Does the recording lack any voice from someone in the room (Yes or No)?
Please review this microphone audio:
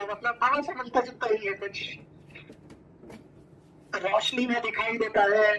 Yes